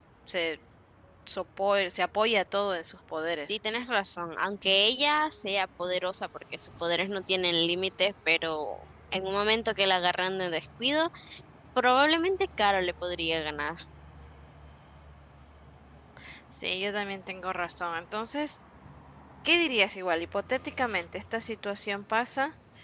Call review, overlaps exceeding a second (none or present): none